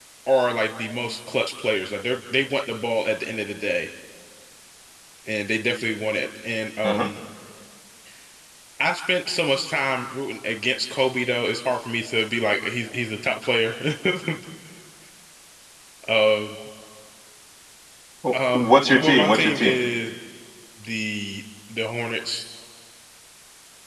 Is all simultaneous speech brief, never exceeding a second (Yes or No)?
No